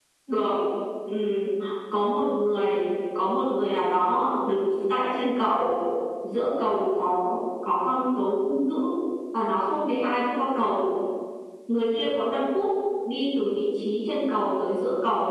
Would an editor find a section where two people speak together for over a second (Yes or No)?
No